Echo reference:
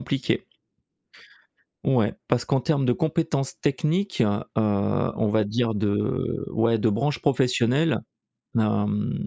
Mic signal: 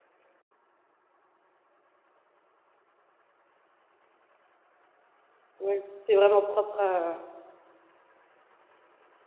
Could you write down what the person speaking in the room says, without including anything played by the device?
Ouais, c'est vraiment propre à

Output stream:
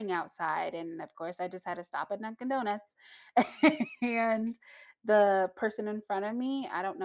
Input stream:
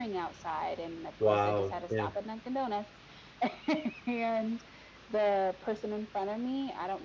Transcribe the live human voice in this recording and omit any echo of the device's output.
Wow, yeah.

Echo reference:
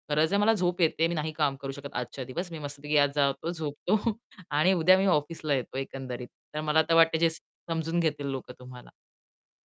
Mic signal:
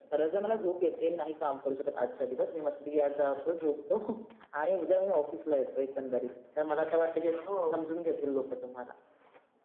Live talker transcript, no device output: हो.

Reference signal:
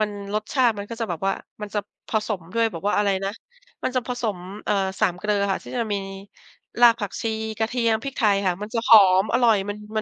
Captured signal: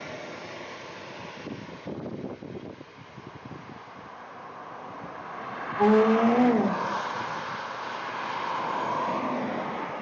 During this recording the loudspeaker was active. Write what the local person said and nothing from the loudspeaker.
อ๋อ

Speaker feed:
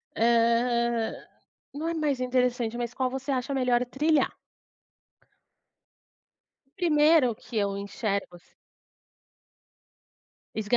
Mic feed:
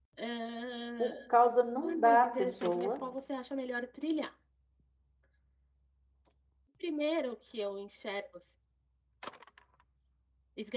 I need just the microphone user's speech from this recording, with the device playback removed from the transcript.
por causa, não da pessoa,

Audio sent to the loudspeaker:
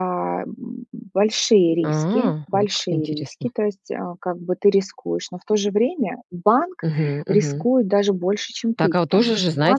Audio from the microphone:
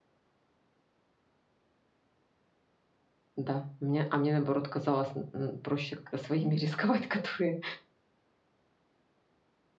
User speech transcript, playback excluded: Да, мне а мне наоборот казалось м м проще как-то своими рисковать, которые

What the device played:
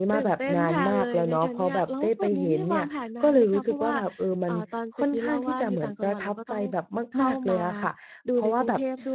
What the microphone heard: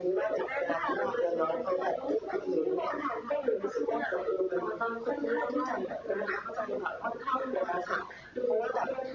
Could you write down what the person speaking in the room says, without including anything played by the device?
none

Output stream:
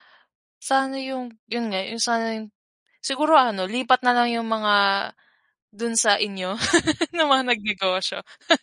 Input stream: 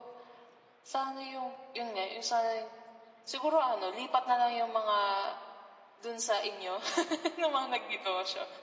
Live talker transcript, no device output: none

